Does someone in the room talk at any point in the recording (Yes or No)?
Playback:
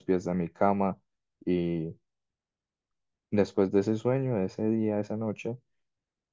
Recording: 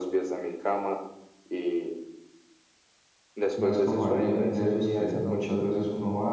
Yes